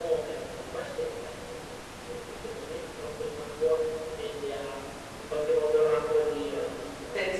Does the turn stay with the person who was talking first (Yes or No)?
No